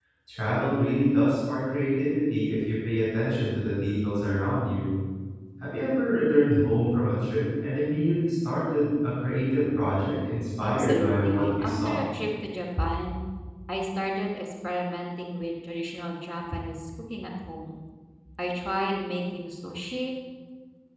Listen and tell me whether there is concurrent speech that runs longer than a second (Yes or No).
Yes